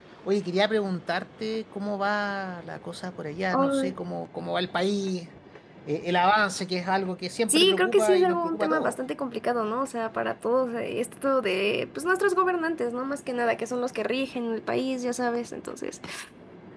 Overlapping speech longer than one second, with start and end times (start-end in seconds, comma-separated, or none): 7.5-9.0